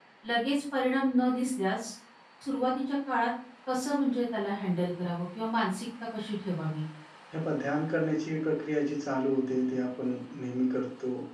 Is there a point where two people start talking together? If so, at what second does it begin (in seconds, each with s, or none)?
none